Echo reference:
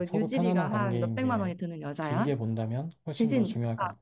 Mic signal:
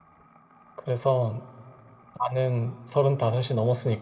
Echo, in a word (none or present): none